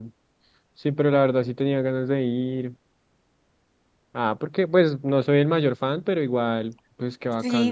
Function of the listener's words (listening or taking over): taking over